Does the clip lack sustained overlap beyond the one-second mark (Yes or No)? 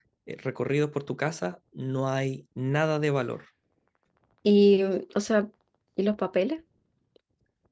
Yes